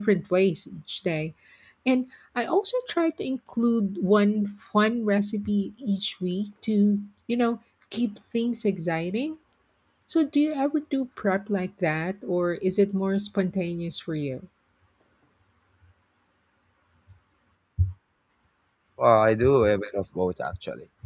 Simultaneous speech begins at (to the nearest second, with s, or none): none